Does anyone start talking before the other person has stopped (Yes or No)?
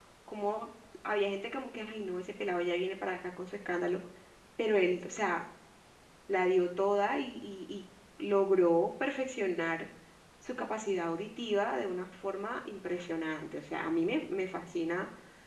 No